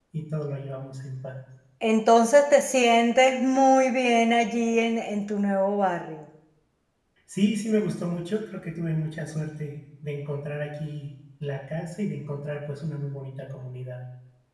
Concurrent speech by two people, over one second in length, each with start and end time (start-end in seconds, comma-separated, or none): none